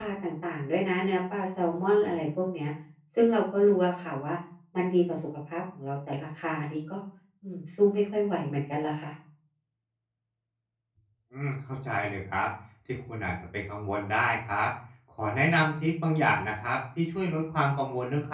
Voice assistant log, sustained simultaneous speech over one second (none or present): none